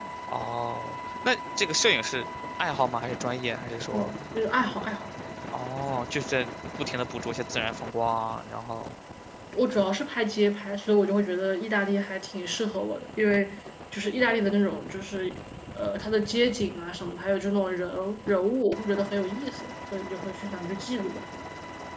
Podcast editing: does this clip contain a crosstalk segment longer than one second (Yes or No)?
No